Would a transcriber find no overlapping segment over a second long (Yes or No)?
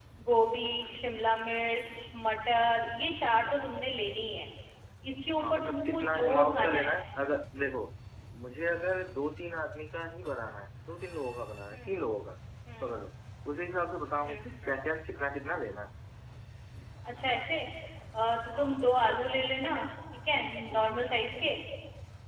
No